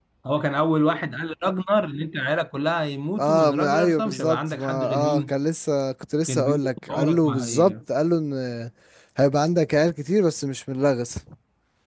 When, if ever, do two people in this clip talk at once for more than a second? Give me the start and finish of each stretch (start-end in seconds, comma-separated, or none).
3.2-5.3, 6.3-7.7